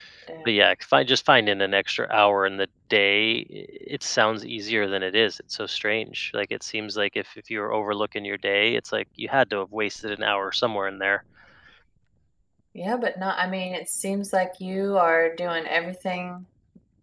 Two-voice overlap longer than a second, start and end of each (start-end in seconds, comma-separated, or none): none